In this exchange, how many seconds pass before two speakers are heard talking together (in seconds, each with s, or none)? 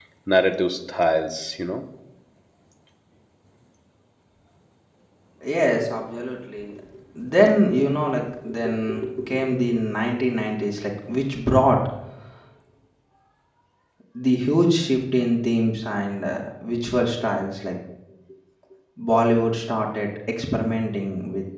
none